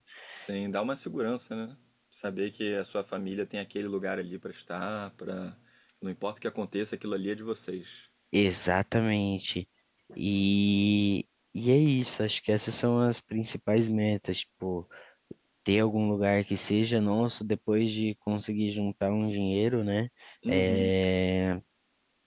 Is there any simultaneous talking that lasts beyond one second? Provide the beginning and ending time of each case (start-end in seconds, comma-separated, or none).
none